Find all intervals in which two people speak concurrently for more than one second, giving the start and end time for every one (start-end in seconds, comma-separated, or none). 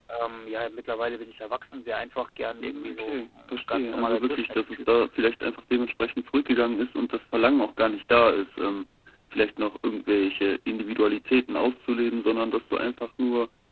2.6-4.8